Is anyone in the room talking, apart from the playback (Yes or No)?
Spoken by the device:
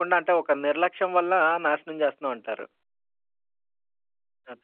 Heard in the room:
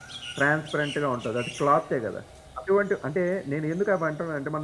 Yes